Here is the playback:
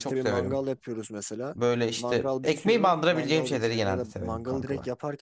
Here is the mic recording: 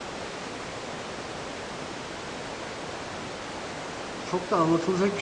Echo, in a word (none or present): none